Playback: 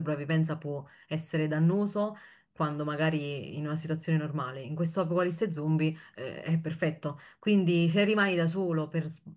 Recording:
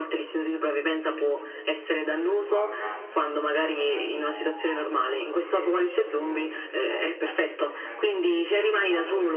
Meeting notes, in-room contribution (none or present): present